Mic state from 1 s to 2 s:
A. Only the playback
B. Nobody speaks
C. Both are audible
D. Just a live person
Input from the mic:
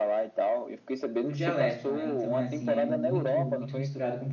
C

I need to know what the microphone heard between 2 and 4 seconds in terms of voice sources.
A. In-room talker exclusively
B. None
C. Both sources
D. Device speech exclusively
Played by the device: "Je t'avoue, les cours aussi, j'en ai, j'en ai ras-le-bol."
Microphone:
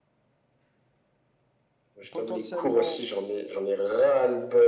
C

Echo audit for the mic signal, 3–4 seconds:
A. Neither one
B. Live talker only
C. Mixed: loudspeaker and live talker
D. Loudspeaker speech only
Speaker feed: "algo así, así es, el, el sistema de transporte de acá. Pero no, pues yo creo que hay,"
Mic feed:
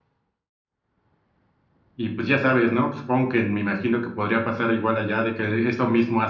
B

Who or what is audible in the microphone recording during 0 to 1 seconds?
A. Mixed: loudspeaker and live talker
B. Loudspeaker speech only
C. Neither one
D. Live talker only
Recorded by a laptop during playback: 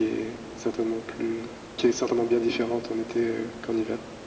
B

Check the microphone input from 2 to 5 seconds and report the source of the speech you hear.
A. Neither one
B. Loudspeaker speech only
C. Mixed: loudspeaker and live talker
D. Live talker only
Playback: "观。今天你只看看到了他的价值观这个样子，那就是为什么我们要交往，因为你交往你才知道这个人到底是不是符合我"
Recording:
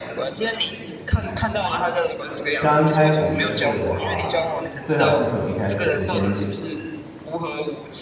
C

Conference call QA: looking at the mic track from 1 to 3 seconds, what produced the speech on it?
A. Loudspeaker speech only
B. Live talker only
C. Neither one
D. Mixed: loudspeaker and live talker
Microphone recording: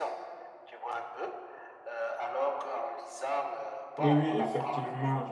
A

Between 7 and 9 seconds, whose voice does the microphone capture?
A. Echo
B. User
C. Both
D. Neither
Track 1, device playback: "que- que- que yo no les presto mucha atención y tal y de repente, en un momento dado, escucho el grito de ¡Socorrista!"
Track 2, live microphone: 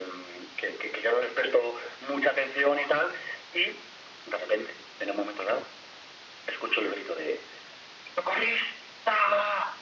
A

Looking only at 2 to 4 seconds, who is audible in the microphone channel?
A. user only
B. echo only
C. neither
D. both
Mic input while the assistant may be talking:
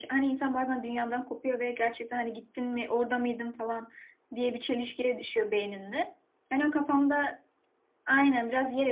B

